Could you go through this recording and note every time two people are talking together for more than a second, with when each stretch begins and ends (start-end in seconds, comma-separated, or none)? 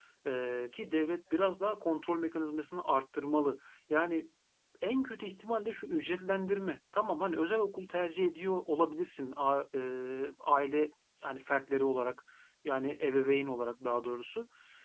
none